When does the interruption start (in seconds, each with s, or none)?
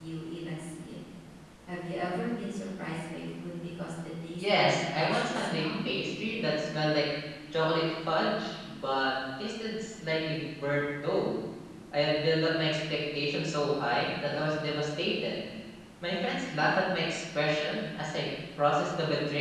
4.4 s